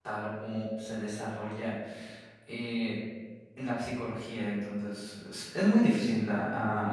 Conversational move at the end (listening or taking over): taking over